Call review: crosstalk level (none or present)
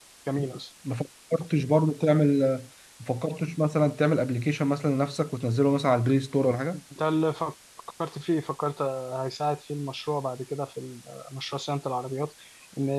none